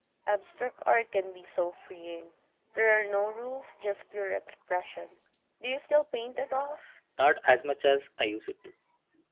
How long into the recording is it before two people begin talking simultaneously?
none

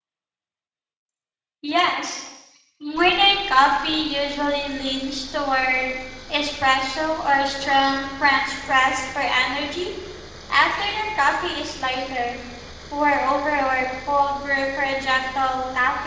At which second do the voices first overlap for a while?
none

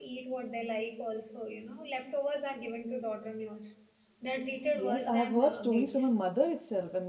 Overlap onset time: 4.7 s

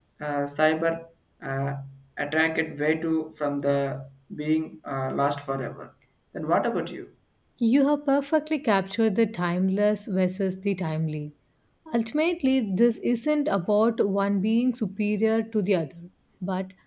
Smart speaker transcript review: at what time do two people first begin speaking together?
none

